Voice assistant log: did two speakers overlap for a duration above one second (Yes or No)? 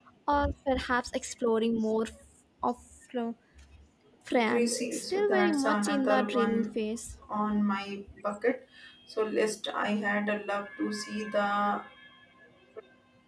Yes